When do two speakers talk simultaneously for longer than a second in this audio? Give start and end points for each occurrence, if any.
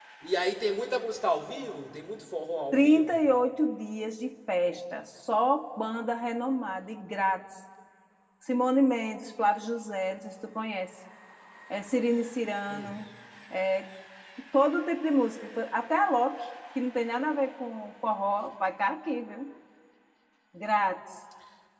none

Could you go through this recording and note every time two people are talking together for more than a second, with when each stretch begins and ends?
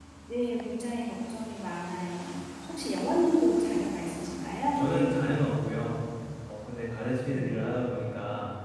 none

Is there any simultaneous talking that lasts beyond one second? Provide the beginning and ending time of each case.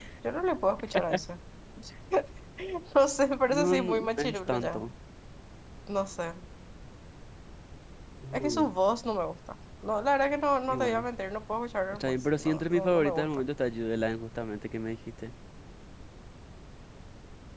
3.5-4.8, 11.9-13.4

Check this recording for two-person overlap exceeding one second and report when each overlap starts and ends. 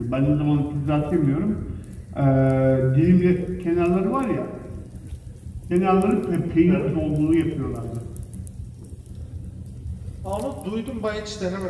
none

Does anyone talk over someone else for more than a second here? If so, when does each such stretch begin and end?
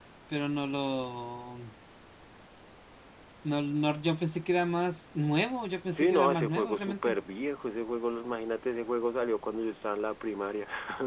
5.9-7.2

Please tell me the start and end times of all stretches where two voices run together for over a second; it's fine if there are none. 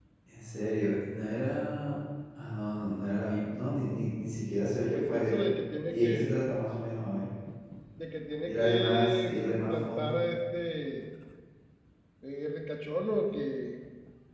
8.4-10.2

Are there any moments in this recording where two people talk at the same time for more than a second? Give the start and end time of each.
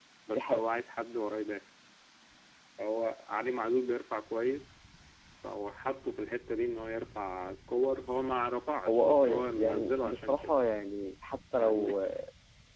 8.9-10.5

